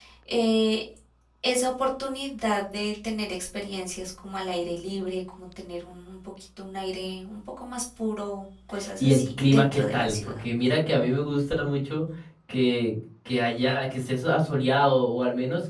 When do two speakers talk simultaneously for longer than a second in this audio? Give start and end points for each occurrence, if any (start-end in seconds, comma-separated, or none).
9.0-10.4